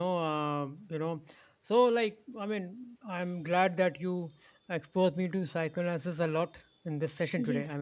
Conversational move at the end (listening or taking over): listening